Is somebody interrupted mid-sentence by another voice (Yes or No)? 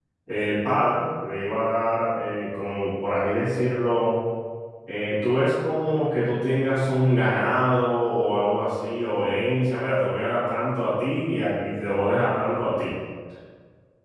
No